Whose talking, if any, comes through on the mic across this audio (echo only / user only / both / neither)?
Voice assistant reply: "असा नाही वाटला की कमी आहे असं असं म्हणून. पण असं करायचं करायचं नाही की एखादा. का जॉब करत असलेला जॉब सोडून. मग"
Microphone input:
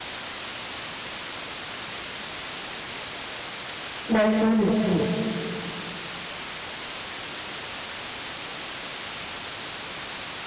user only